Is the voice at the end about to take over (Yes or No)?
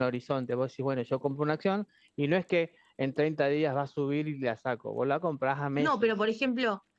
Yes